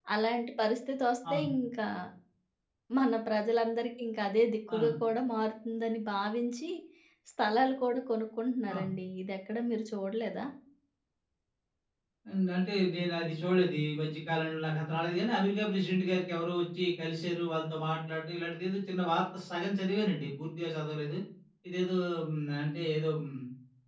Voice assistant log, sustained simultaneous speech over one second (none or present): none